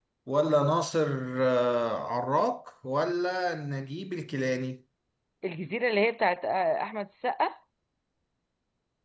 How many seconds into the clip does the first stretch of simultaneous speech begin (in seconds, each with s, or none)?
none